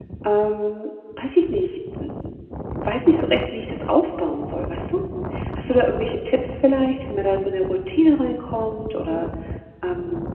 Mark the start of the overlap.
none

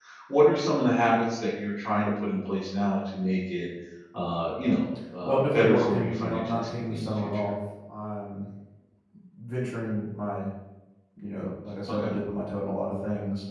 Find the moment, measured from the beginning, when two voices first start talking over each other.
5.2 s

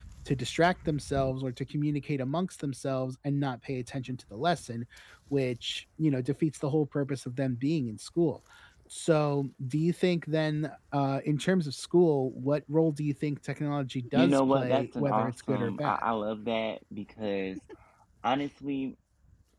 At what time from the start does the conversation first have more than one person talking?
14.1 s

